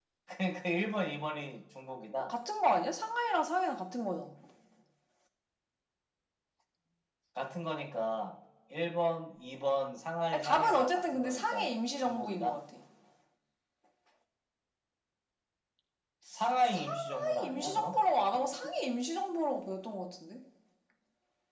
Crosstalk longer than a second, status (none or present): present